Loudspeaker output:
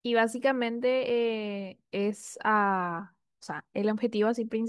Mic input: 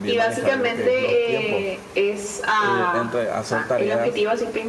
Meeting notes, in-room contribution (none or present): present